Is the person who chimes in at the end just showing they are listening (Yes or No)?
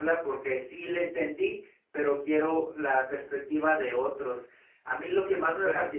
Yes